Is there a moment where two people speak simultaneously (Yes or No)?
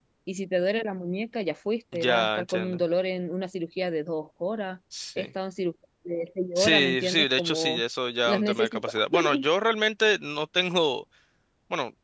Yes